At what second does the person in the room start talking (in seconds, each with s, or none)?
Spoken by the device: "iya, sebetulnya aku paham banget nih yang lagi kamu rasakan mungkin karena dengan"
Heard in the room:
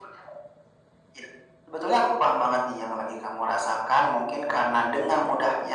none